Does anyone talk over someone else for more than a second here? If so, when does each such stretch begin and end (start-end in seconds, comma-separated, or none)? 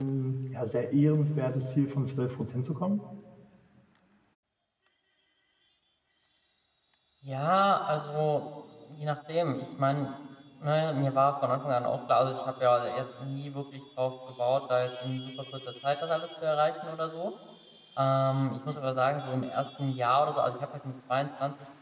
none